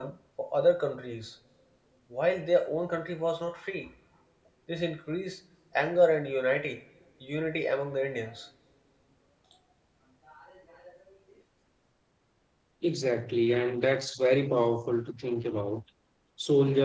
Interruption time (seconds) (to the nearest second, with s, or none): none